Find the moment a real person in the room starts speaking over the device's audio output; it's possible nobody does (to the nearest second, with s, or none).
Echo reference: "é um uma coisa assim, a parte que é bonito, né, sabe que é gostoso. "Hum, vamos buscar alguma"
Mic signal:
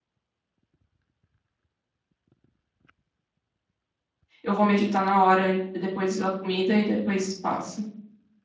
4 s